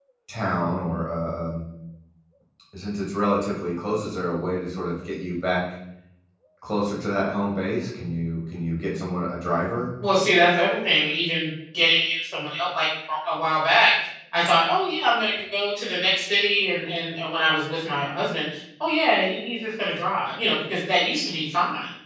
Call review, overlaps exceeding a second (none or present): none